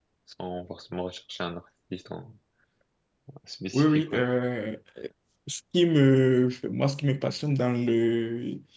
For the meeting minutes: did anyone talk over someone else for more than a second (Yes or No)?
No